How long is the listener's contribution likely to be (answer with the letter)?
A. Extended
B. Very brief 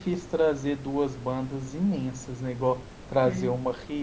B